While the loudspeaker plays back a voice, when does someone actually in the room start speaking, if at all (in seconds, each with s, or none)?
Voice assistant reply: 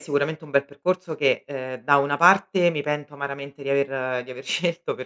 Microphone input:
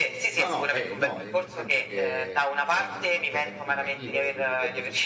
0.4 s